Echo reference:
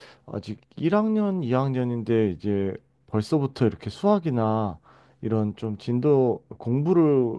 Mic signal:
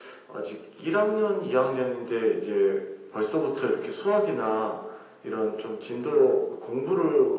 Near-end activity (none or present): none